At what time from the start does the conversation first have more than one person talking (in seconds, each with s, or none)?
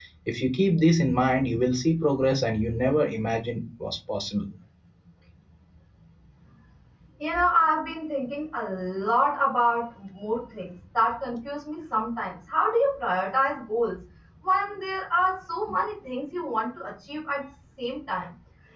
none